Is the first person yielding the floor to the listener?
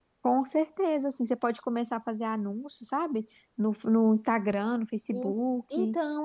Yes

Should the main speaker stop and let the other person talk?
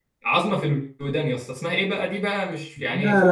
Yes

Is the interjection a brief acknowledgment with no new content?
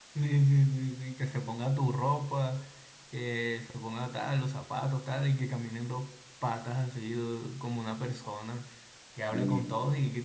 Yes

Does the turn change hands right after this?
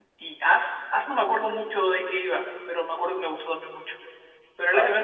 Yes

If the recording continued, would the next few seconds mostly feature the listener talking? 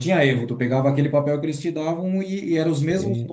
No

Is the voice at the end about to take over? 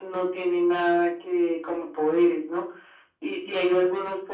No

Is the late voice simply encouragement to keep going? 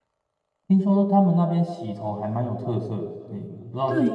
No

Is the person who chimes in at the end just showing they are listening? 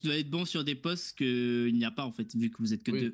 No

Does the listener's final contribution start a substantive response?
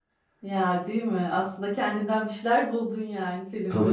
Yes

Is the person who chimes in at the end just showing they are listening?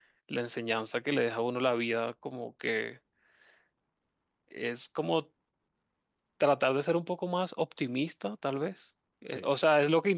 Yes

